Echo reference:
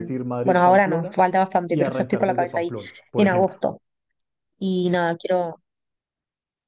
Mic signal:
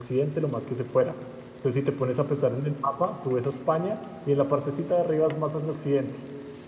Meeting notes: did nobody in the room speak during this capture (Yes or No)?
No